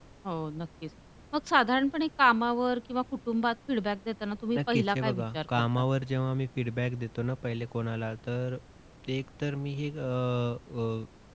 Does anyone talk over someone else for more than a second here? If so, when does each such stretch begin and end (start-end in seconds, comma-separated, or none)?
4.6-5.8